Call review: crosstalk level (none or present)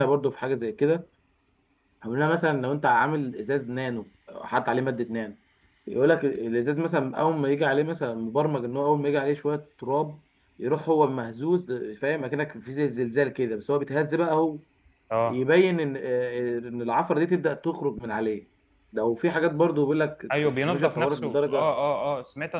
present